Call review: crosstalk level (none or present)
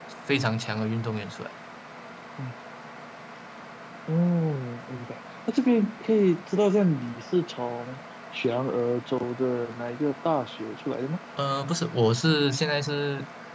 none